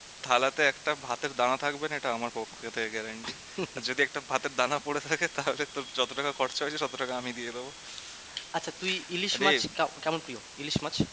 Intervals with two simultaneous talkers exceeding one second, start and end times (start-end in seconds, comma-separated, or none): none